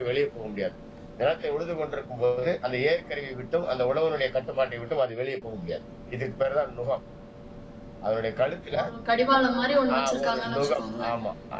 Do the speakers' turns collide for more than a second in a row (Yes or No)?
Yes